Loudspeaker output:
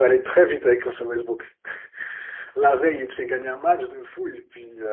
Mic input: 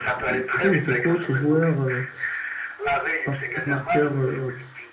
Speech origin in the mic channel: both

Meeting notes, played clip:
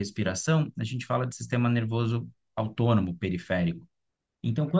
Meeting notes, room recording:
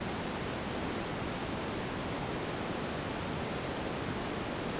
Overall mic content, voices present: neither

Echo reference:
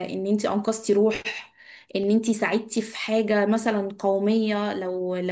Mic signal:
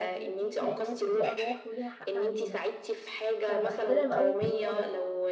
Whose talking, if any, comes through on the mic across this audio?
both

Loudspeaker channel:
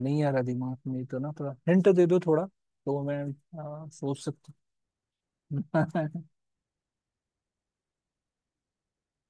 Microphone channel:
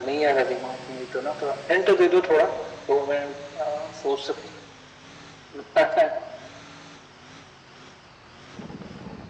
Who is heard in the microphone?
echo only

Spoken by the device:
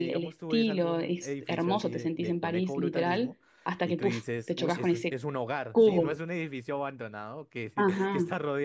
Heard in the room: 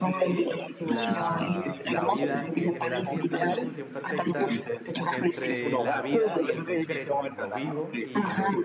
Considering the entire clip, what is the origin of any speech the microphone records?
both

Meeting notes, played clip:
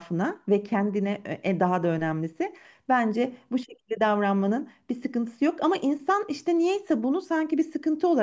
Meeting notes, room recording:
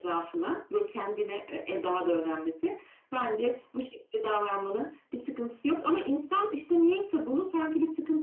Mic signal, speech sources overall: echo only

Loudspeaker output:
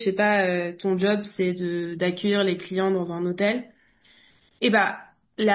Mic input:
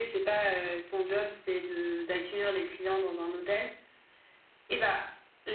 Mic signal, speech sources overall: echo only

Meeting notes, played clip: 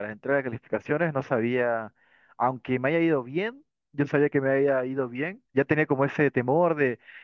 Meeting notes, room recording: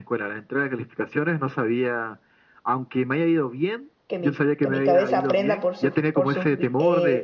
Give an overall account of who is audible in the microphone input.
both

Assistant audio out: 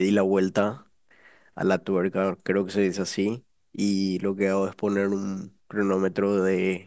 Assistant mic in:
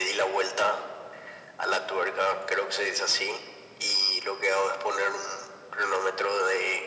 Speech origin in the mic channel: echo only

